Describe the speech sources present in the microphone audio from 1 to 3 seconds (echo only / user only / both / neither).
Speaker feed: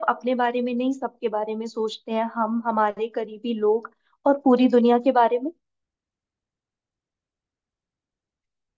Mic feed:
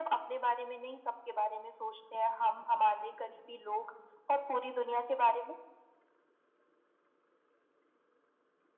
echo only